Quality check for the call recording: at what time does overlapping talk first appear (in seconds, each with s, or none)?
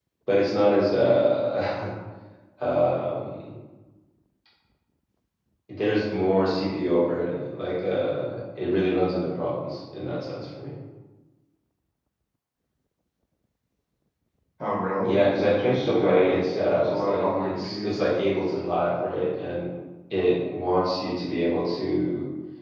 15.0 s